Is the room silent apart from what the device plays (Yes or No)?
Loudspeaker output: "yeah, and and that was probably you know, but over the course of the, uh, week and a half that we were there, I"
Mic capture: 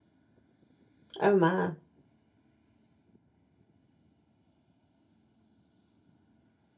No